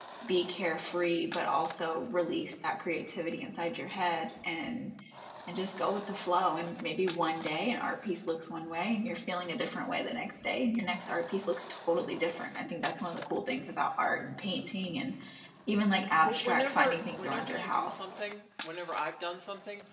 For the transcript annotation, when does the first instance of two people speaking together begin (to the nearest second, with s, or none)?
16 s